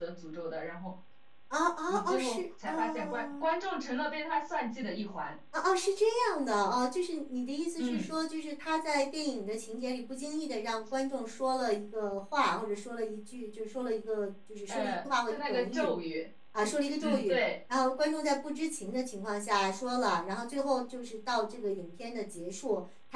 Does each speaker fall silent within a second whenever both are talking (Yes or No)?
No